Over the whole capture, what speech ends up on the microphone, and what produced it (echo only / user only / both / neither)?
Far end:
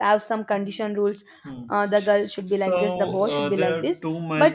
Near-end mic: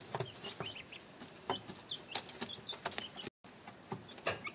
neither